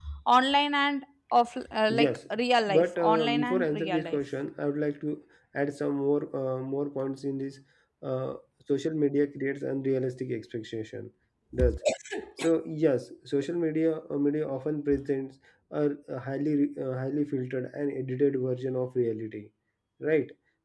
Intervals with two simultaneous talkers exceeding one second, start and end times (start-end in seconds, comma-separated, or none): 2.7-4.2